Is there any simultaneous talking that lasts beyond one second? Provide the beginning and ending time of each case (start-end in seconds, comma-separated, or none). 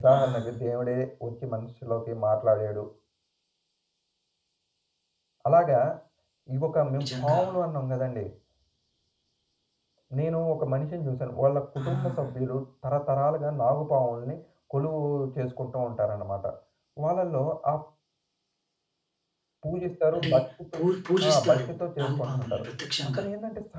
21.3-22.6